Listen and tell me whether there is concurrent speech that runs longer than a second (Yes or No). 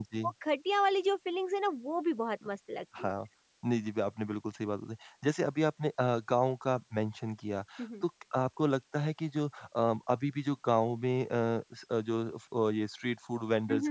No